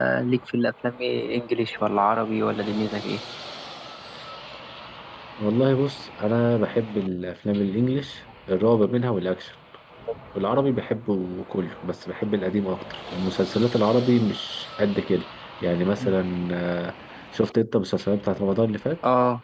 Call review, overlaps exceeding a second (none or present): none